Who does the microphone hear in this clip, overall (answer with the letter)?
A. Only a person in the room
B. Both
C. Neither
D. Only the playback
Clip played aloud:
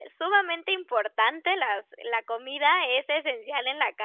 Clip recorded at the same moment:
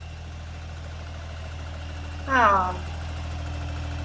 A